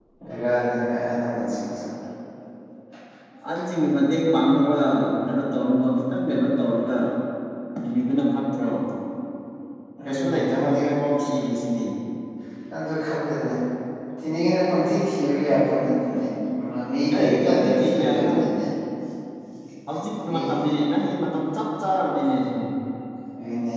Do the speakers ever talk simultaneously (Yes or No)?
Yes